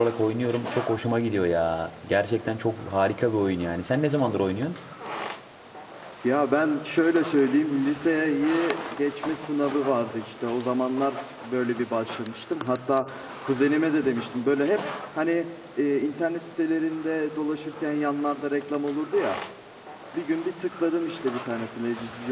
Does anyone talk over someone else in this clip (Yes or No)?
No